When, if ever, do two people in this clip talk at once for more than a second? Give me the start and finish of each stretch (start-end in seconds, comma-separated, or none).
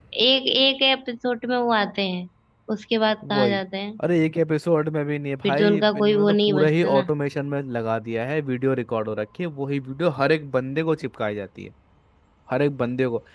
5.4-7.1